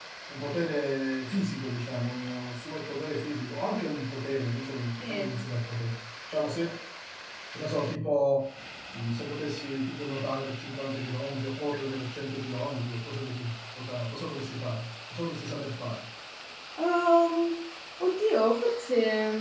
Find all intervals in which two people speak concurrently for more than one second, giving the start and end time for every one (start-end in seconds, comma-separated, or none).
none